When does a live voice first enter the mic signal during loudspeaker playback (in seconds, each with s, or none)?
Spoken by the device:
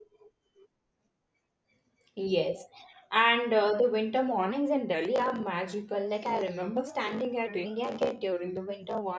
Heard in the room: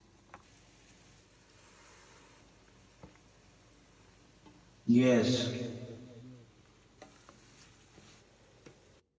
4.8 s